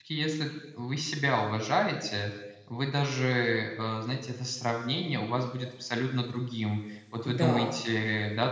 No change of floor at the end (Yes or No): Yes